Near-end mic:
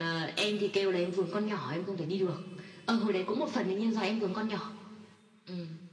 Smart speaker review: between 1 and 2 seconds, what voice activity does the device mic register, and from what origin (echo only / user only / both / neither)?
echo only